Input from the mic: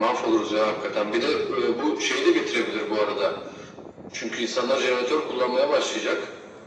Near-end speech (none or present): none